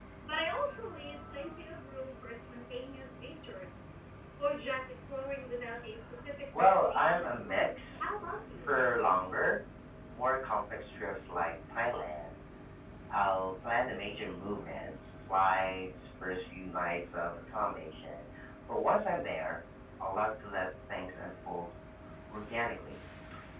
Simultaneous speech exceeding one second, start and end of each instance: 6.6-8.7

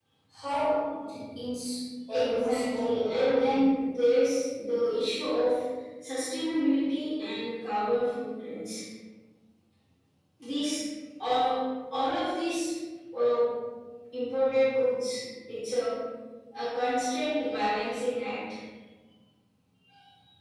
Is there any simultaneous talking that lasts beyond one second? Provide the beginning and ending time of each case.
2.1-3.7

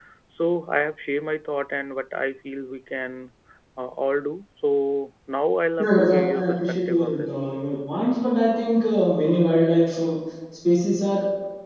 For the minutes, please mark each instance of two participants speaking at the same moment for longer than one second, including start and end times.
5.8-7.3

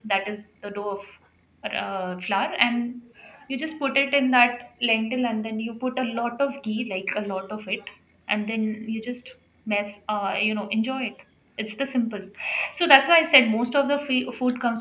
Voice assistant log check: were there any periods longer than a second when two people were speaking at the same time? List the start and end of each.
none

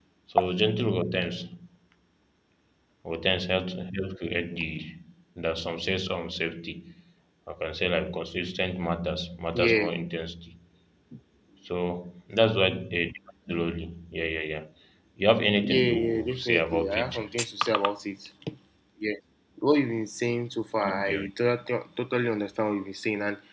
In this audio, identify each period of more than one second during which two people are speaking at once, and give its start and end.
15.6-17.2

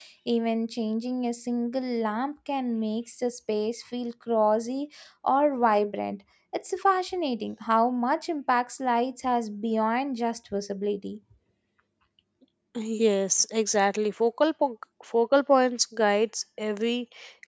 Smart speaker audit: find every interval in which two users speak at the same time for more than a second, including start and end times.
none

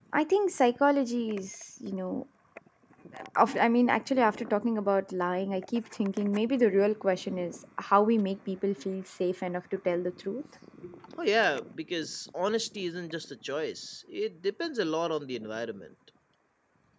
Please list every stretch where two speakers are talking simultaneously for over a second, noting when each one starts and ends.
none

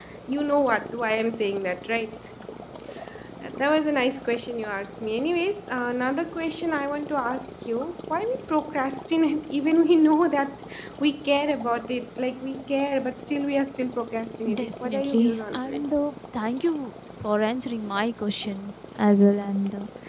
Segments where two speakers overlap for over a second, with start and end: 14.5-15.8

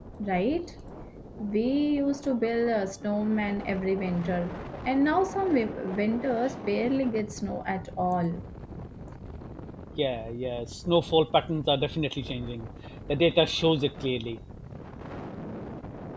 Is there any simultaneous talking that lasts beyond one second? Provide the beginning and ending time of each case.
none

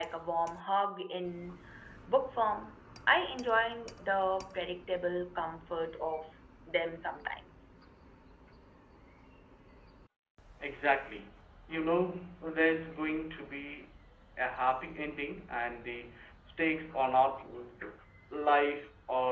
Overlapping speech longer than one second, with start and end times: none

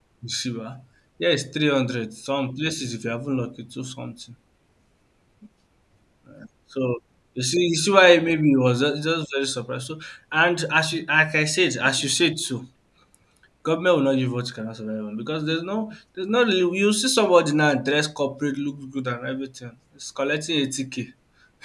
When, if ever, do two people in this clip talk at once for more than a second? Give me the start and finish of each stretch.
none

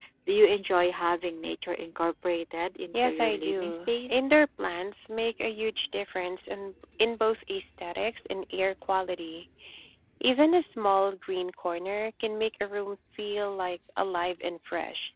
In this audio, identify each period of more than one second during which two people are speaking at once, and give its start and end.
2.9-4.3

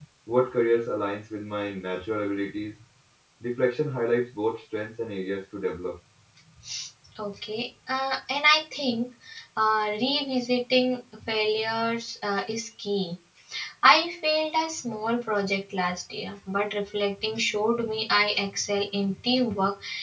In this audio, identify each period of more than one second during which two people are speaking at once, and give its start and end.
none

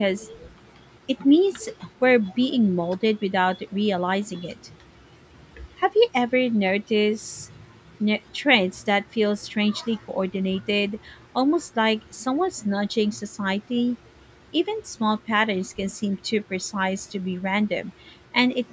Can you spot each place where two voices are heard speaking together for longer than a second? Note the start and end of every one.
none

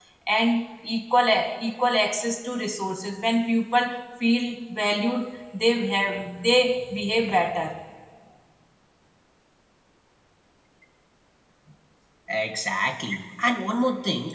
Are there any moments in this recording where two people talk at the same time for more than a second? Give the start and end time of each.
none

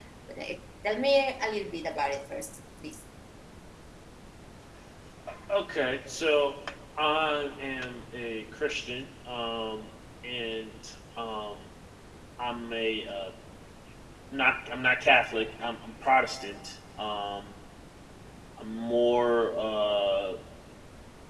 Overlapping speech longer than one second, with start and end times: none

